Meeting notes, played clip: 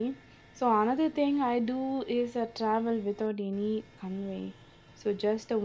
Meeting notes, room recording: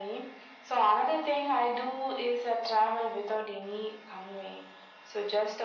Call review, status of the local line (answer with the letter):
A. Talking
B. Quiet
B